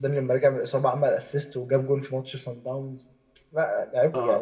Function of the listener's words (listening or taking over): taking over